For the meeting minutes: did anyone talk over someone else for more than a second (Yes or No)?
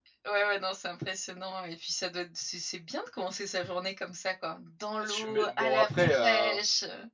Yes